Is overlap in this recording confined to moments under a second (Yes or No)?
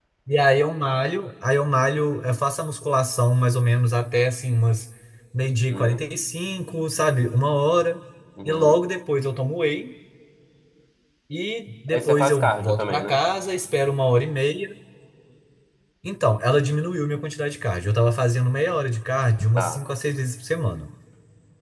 No